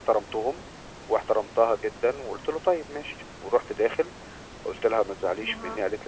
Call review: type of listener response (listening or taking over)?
listening